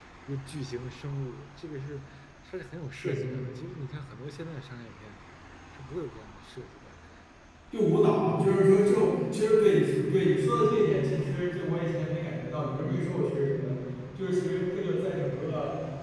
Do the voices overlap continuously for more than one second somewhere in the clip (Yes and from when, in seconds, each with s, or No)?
No